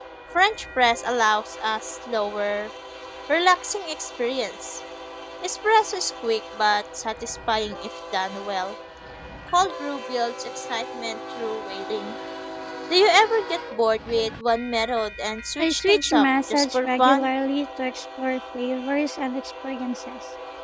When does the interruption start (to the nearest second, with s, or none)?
16 s